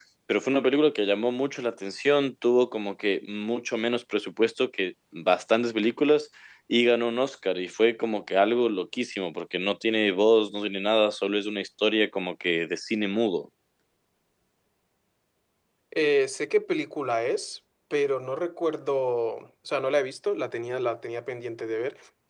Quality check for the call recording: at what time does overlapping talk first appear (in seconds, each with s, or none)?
none